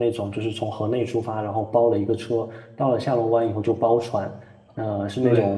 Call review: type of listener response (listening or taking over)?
listening